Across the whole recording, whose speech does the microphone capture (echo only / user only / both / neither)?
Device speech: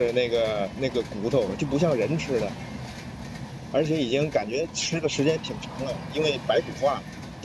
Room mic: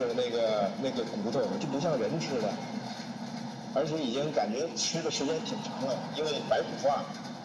echo only